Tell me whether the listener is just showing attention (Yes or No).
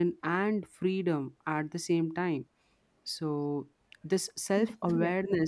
Yes